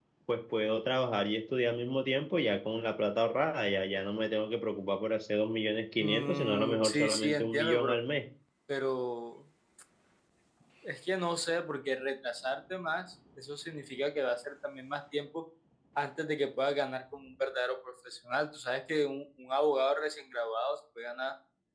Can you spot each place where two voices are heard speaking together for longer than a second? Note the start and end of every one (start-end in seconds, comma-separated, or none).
6.0-8.0